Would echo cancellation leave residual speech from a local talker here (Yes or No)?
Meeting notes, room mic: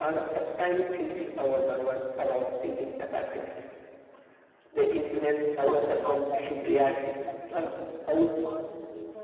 Yes